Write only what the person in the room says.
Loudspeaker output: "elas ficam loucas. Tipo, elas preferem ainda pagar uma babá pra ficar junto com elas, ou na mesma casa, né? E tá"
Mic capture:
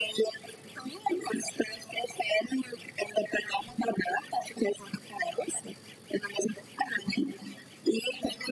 none

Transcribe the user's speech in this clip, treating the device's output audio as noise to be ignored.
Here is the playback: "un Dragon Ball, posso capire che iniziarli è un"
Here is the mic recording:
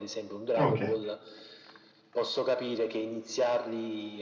Ok.

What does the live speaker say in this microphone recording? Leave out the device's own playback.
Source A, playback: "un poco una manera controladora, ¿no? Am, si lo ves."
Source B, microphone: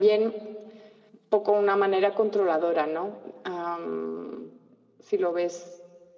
none

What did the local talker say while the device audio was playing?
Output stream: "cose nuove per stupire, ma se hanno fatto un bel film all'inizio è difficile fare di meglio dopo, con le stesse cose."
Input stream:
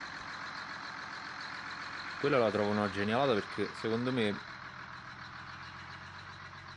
Quella la trovo una genialata perché secondo me

